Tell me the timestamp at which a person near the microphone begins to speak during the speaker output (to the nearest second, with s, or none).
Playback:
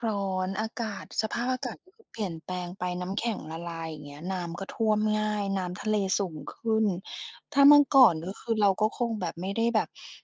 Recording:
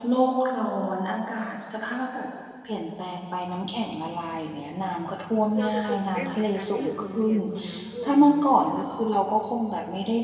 6 s